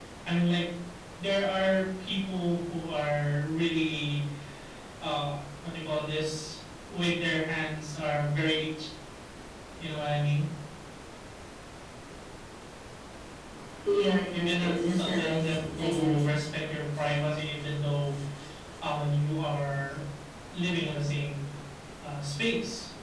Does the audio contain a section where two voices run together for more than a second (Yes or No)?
Yes